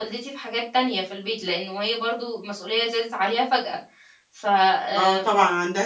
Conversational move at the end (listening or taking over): taking over